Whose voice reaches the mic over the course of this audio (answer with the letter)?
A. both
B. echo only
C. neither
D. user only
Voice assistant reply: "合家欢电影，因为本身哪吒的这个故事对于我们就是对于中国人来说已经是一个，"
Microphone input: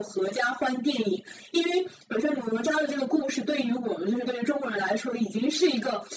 B